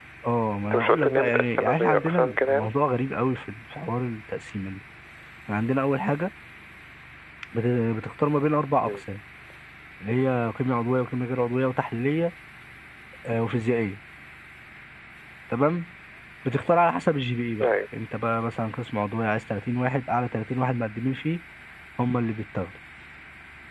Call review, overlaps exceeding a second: present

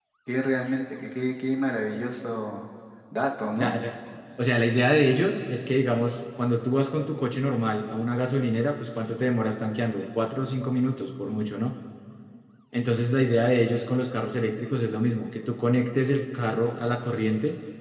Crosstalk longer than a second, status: none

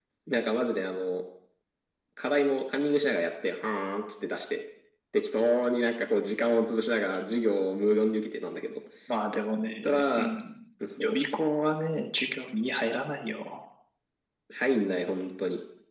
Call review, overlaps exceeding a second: none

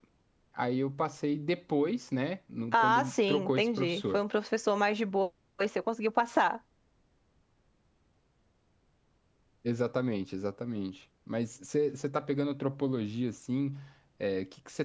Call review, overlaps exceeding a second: present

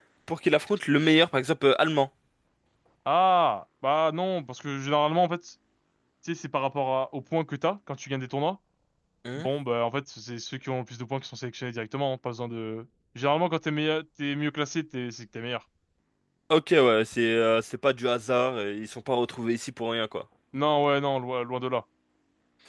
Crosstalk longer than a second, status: none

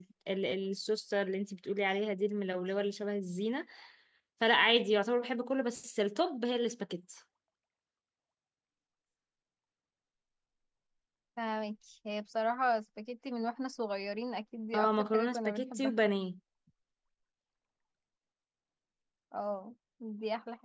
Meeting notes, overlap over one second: present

